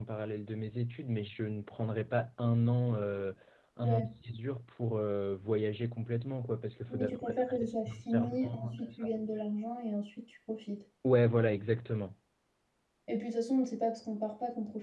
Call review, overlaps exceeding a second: present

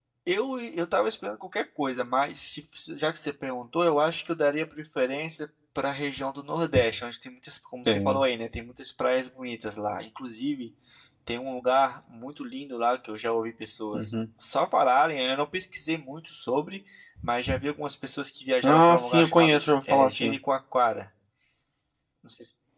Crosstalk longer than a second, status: present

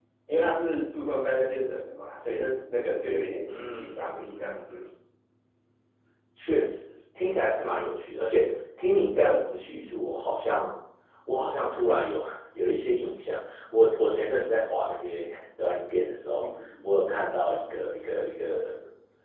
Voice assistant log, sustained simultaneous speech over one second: present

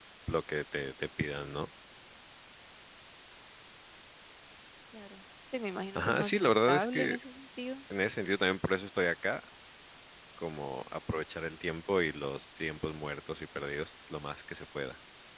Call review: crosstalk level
present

